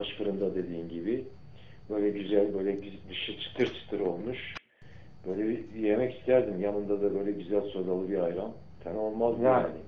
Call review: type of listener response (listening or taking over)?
taking over